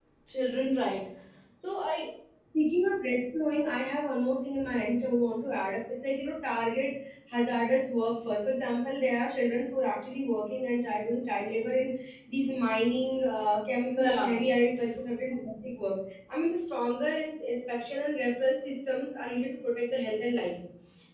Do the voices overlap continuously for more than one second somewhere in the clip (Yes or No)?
No